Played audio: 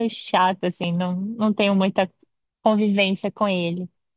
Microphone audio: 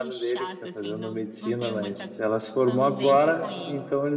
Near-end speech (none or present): present